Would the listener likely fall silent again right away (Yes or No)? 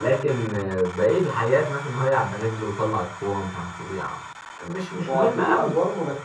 No